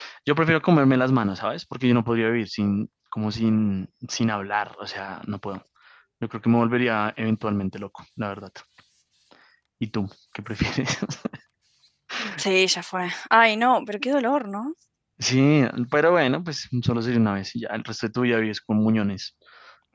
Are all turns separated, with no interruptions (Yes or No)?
Yes